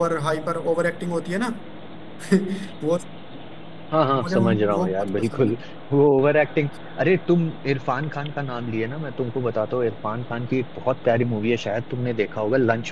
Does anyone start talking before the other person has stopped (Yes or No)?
Yes